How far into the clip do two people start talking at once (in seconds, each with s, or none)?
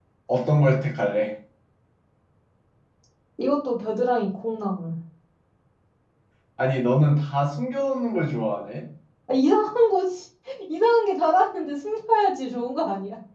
none